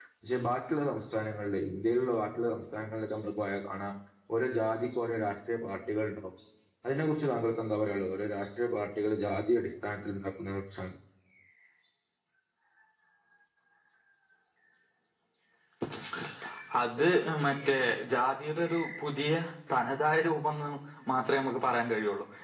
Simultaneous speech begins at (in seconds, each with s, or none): none